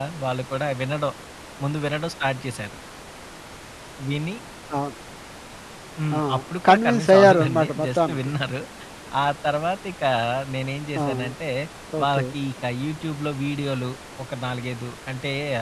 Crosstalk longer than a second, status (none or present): present